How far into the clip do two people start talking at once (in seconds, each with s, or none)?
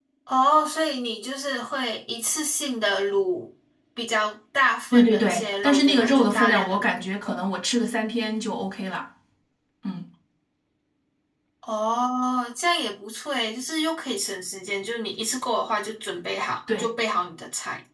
4.9 s